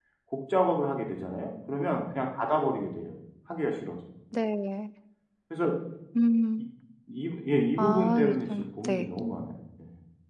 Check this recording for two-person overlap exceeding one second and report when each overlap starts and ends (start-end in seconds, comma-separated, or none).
7.8-9.1